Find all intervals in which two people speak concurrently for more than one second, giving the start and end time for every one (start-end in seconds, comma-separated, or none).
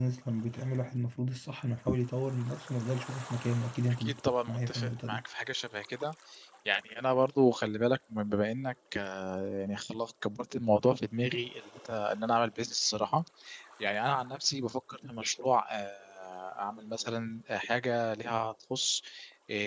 3.9-5.2